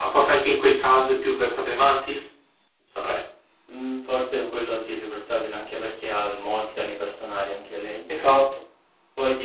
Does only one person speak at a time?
Yes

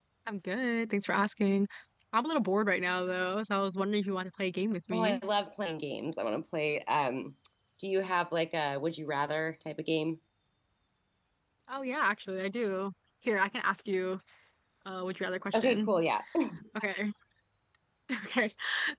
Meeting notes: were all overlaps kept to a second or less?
Yes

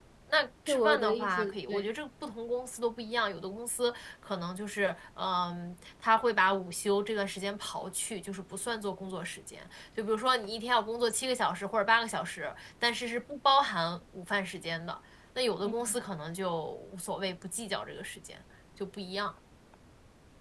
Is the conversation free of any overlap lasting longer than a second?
No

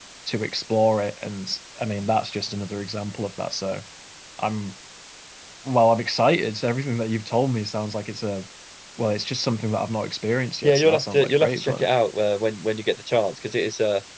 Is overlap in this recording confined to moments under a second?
No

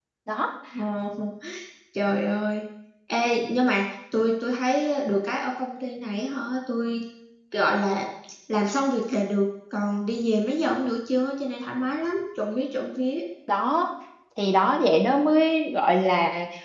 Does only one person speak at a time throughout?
Yes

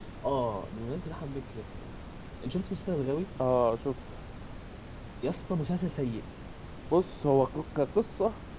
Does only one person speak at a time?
Yes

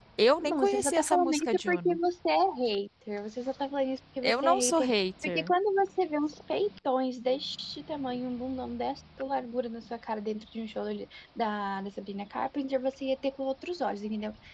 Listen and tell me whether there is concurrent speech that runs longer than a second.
Yes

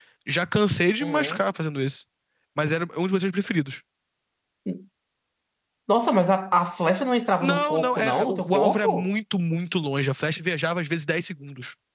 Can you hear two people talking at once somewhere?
Yes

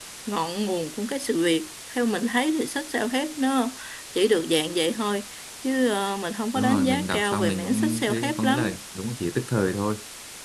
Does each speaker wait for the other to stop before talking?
No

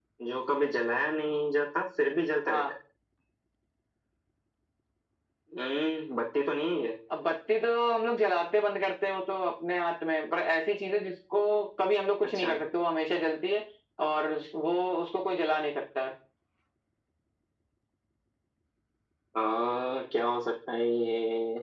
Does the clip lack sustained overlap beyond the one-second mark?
Yes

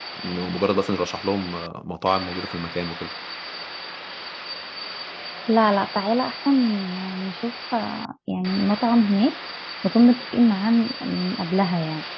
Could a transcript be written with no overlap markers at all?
Yes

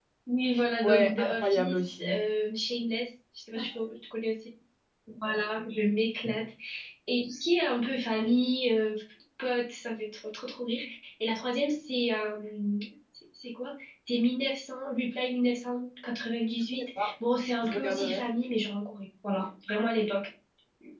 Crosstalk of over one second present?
Yes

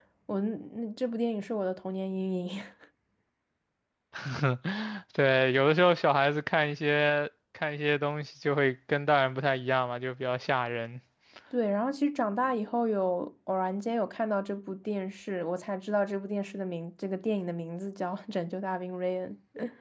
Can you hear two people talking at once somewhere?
No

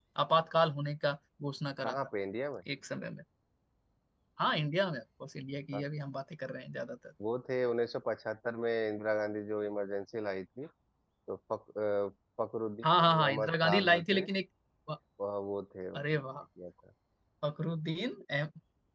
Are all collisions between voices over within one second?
No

